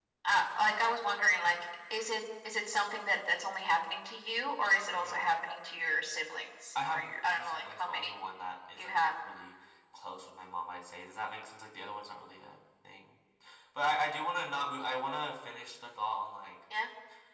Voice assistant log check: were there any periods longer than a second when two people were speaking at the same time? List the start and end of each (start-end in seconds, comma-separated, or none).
6.9-8.1